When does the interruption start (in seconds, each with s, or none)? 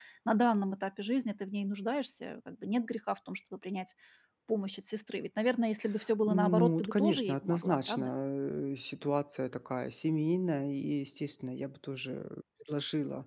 6.2 s